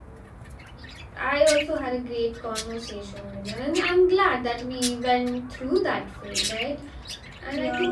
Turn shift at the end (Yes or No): No